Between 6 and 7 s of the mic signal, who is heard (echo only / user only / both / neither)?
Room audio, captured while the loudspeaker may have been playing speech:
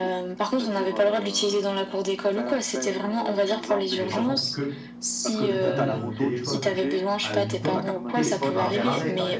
both